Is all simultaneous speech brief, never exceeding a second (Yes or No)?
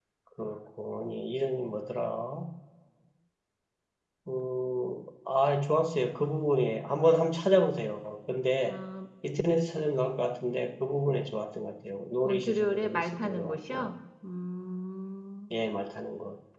No